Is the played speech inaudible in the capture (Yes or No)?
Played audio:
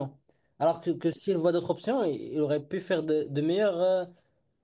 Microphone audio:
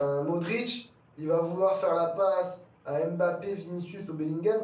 Yes